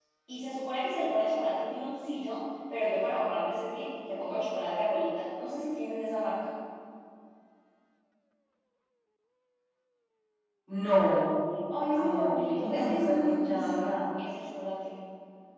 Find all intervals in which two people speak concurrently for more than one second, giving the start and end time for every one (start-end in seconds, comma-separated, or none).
12.0-13.9